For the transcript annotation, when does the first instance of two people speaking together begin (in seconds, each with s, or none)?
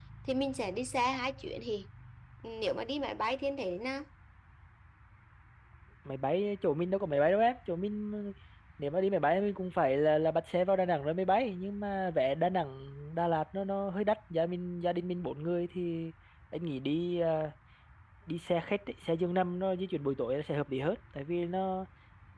none